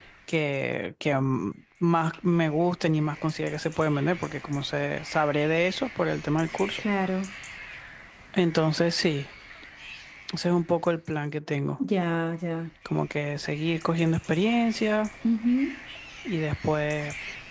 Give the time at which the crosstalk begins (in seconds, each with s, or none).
none